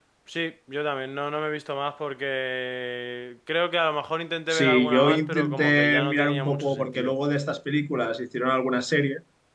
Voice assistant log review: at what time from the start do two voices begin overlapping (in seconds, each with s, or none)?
4.5 s